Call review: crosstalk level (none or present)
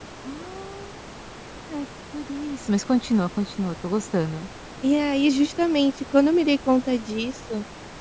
none